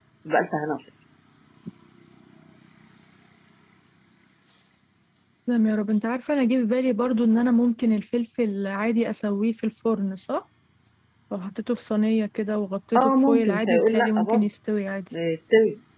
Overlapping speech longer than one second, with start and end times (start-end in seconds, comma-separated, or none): 13.0-14.5